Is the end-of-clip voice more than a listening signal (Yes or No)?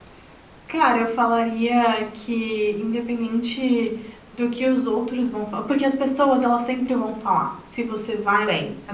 No